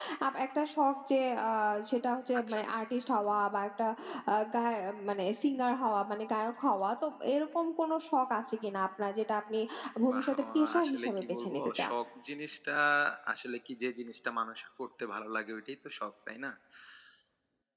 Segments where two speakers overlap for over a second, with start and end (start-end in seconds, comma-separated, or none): 10.1-11.9